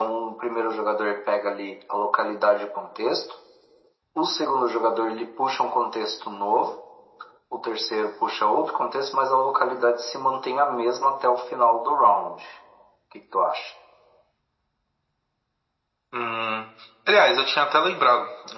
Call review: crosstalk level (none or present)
none